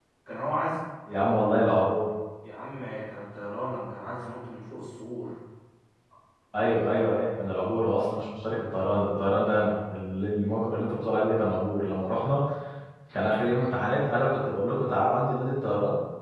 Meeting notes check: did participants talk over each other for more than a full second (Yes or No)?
No